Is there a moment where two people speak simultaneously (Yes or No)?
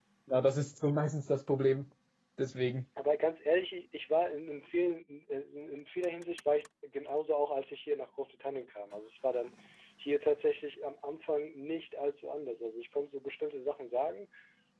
No